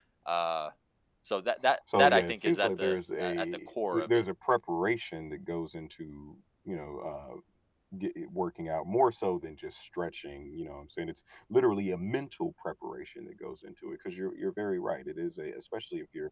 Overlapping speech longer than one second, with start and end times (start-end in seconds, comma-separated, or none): 2.0-3.4